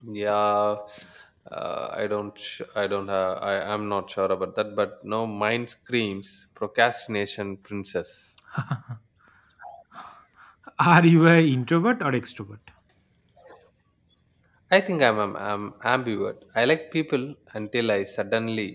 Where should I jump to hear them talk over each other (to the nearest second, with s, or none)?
none